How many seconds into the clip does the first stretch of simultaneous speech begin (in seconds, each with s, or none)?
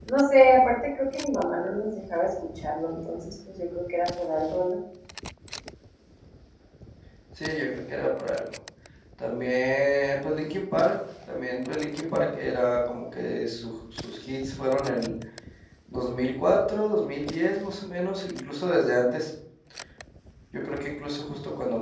none